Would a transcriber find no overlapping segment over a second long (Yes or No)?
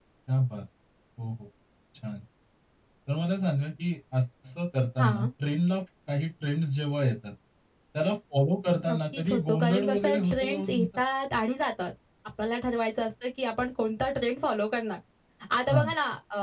No